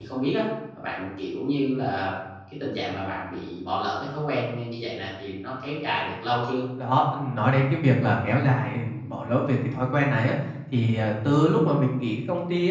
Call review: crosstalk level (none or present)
none